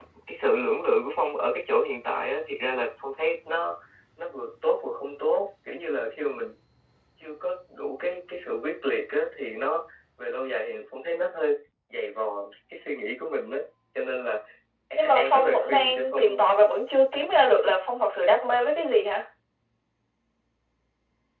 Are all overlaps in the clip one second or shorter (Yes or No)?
No